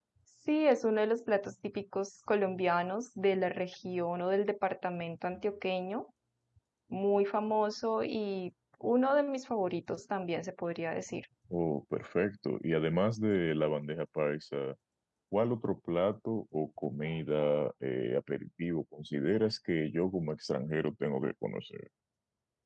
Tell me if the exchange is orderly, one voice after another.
Yes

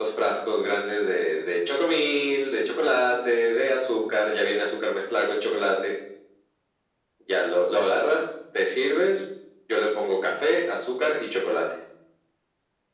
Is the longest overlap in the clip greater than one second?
No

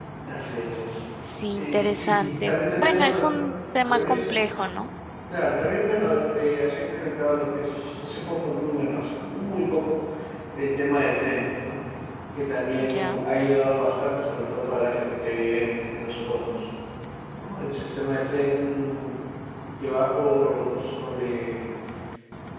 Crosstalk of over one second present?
Yes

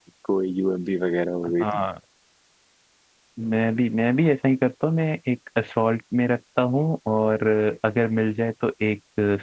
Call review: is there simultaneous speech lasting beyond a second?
No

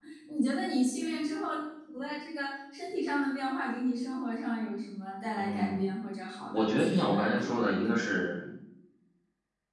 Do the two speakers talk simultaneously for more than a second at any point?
Yes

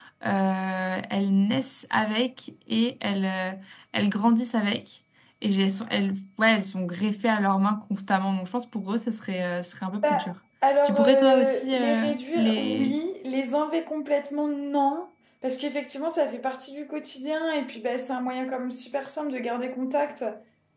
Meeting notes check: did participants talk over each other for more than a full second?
Yes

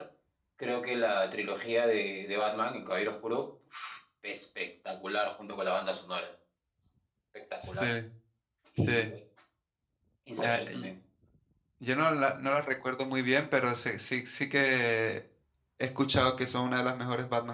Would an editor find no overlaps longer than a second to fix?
Yes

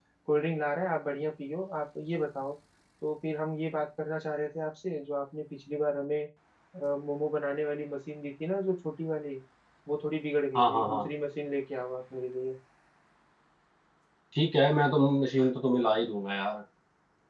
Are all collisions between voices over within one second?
Yes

